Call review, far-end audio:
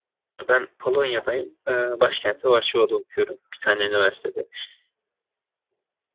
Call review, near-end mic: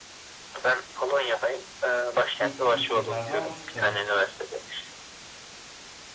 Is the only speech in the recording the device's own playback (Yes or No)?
No